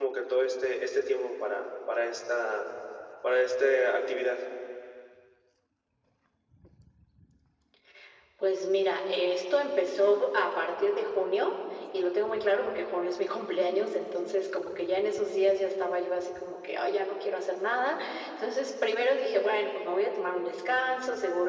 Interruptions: none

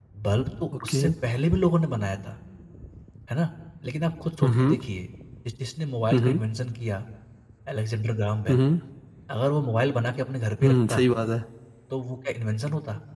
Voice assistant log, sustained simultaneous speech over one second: none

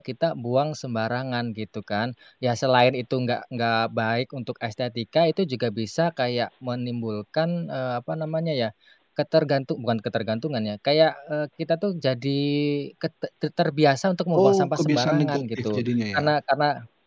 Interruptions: present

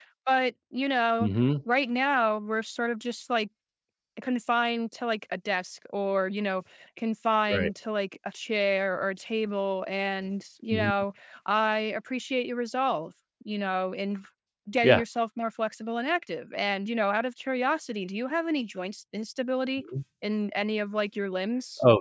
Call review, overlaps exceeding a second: none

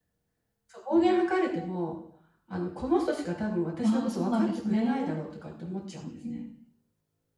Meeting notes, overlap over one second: present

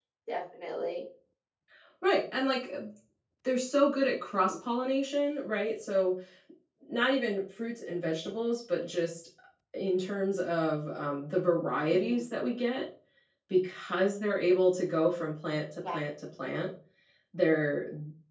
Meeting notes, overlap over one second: none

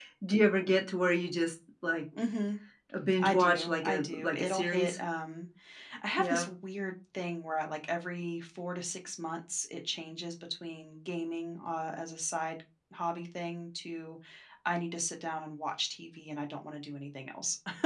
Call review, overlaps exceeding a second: present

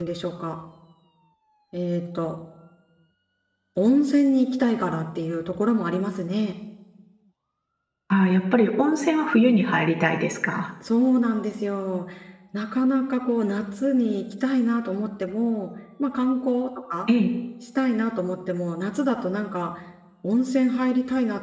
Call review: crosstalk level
none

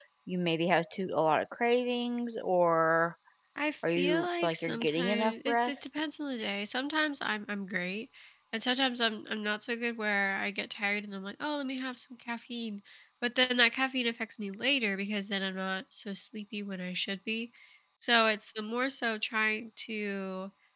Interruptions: present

